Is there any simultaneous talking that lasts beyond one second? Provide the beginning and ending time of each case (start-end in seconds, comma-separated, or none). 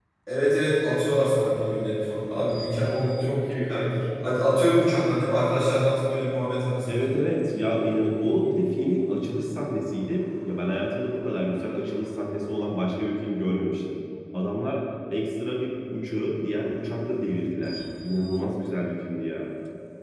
none